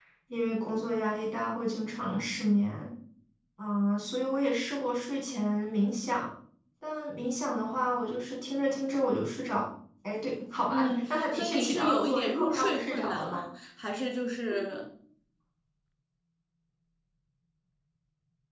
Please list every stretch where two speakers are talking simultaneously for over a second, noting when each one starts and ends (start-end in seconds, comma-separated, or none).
10.7-13.4